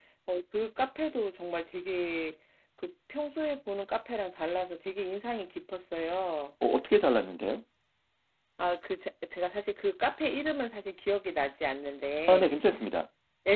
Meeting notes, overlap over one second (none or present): none